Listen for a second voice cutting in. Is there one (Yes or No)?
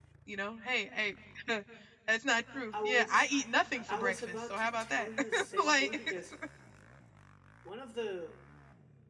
Yes